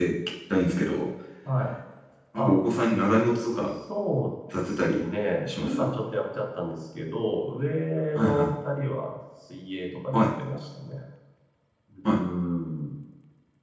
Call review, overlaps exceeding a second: none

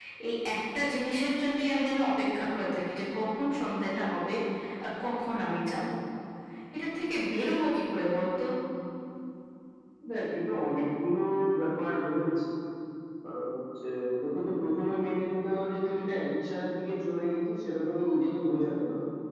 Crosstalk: none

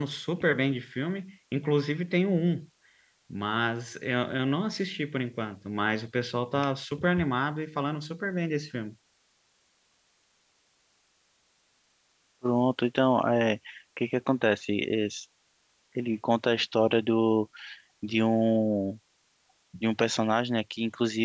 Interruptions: none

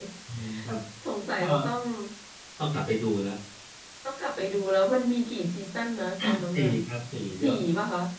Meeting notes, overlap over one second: none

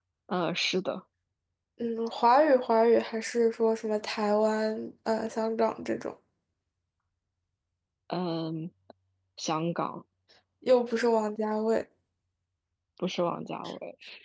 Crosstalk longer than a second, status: none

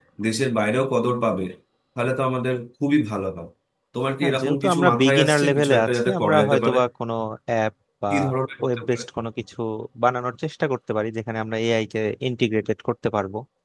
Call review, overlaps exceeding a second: present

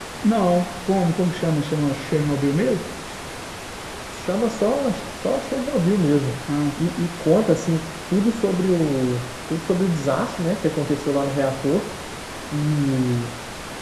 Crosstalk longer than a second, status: none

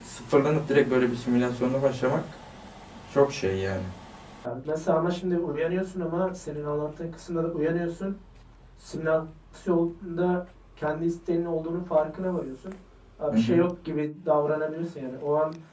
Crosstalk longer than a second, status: none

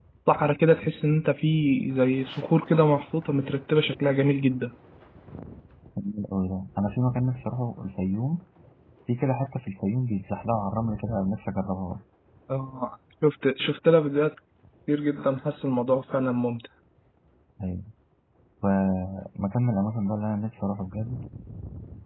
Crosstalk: none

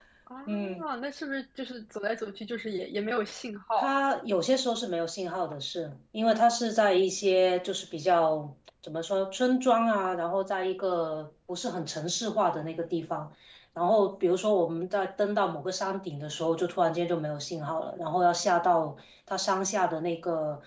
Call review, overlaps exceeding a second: none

